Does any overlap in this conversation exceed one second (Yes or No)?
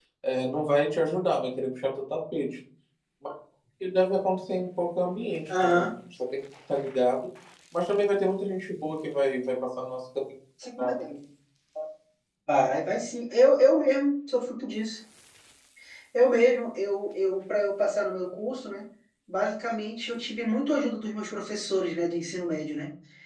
No